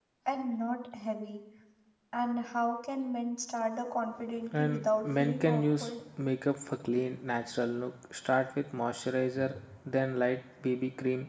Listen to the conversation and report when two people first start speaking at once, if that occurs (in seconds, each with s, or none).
4.5 s